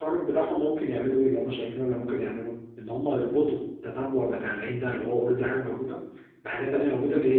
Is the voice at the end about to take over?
No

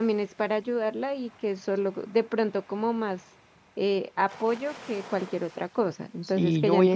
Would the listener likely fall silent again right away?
No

